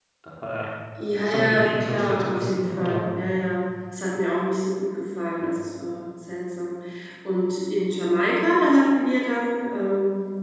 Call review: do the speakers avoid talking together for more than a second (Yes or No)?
No